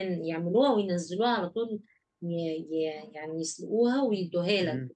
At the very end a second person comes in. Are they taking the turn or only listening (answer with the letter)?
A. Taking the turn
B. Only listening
A